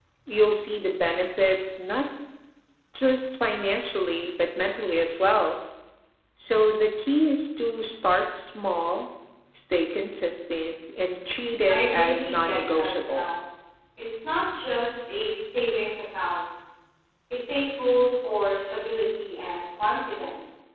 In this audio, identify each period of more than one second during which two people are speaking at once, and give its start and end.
11.7-13.3

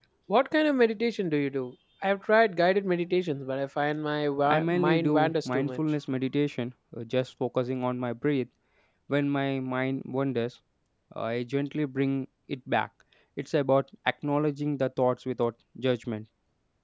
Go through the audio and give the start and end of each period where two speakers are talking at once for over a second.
4.5-5.8

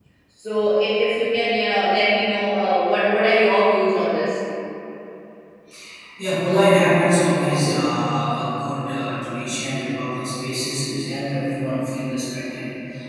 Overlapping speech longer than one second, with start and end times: none

